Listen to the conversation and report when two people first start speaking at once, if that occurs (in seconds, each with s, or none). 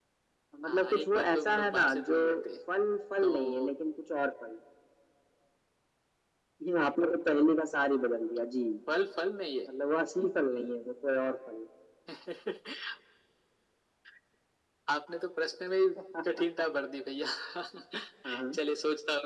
0.7 s